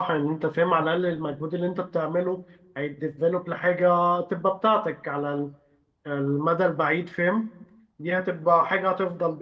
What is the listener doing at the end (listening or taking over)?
listening